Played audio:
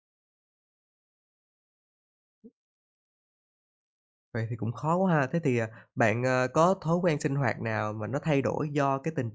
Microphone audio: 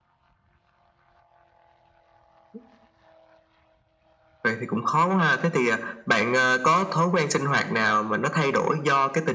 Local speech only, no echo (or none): none